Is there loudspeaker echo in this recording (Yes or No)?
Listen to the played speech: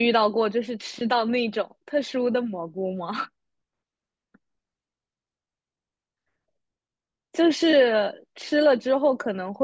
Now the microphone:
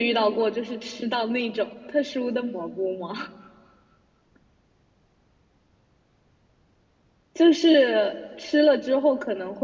Yes